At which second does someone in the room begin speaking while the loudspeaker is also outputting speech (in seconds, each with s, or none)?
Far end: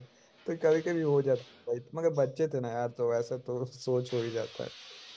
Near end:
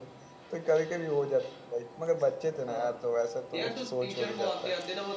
2.7 s